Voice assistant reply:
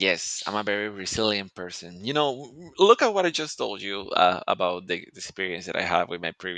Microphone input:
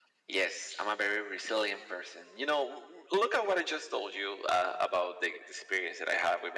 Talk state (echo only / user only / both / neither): echo only